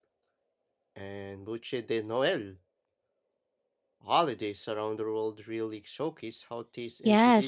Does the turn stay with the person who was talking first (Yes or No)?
No